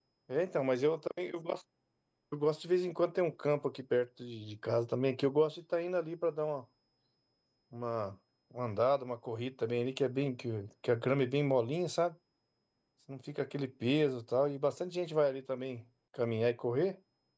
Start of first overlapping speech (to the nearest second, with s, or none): none